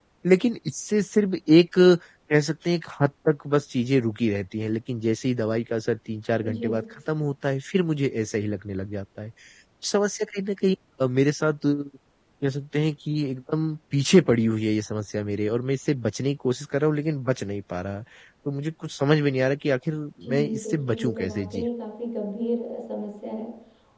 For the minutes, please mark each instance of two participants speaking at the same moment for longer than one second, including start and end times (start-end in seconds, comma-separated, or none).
20.2-21.6